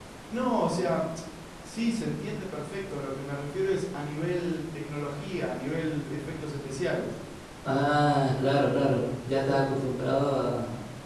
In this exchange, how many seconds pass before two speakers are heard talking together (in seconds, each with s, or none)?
none